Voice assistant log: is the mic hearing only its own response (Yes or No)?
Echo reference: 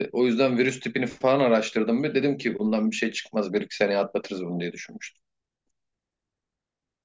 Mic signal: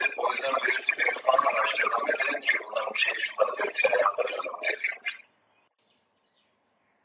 Yes